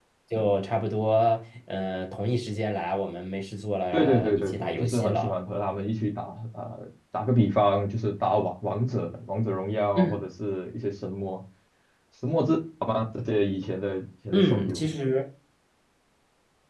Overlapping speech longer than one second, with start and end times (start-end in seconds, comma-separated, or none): 3.9-5.3